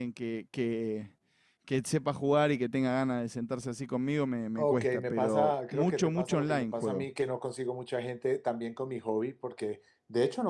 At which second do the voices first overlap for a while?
4.6 s

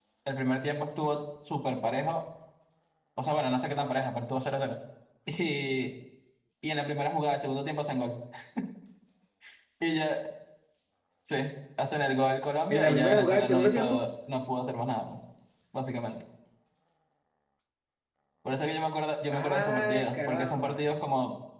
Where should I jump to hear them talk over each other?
12.7 s

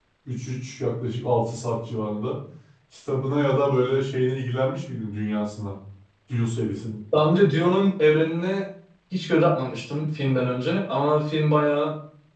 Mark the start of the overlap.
none

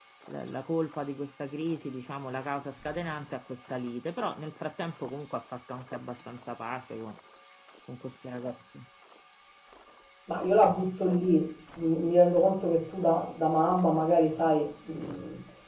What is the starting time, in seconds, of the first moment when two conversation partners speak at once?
none

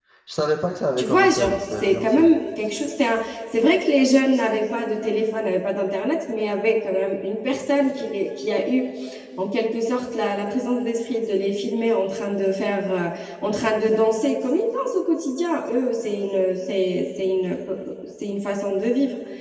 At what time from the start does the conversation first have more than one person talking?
1.0 s

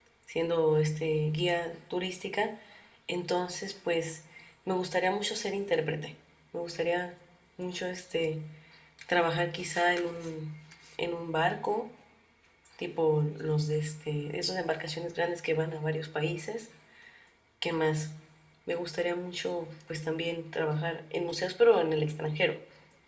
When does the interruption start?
none

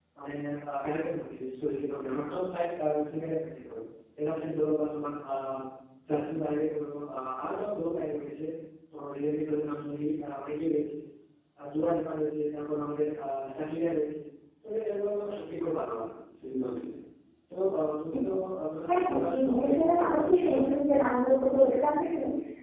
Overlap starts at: 18.9 s

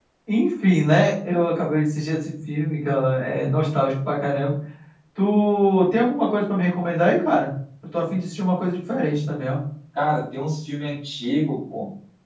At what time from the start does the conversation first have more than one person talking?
none

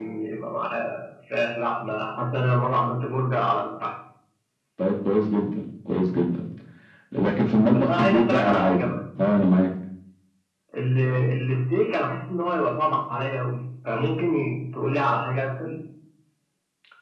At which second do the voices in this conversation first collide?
7.7 s

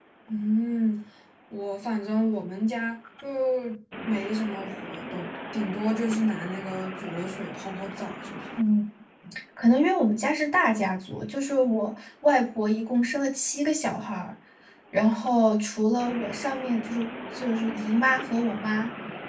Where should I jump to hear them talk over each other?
none

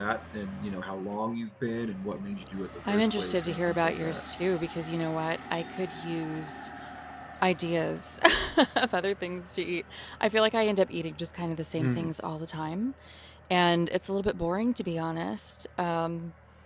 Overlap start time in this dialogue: 2.9 s

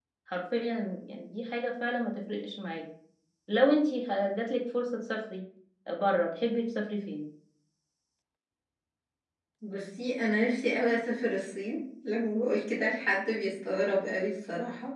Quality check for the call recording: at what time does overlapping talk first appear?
none

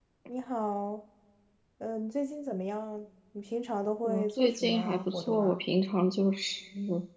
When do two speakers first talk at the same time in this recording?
4.0 s

